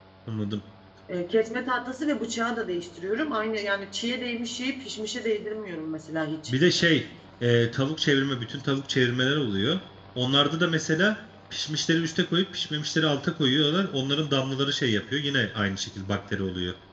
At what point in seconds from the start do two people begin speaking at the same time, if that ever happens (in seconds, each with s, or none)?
none